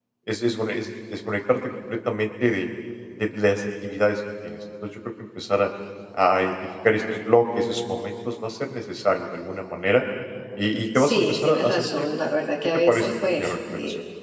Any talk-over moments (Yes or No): Yes